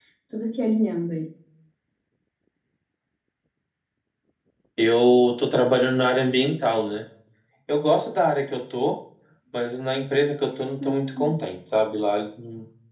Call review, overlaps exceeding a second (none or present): none